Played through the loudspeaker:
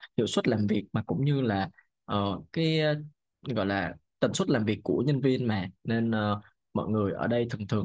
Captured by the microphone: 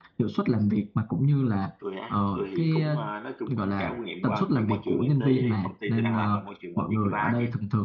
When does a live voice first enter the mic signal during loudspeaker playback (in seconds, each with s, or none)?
1.8 s